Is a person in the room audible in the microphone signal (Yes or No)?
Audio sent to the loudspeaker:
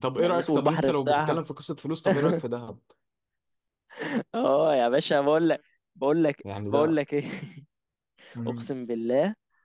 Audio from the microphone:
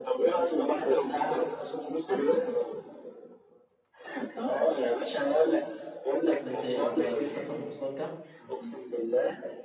Yes